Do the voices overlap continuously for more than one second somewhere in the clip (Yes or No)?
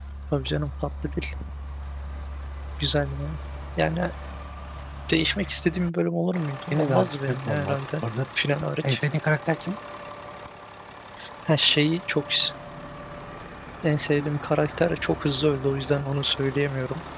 Yes